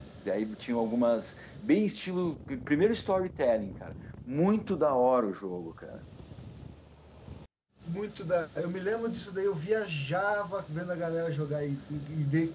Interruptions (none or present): none